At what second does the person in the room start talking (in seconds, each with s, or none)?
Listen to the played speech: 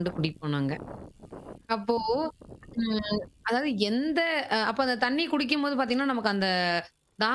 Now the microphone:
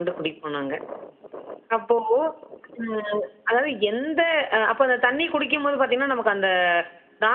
none